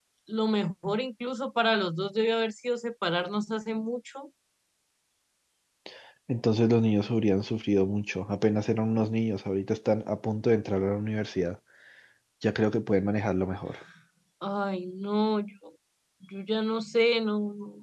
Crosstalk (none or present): none